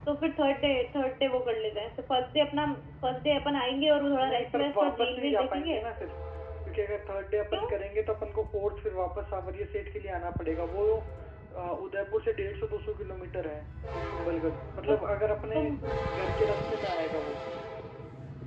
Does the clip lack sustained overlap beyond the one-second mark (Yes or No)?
No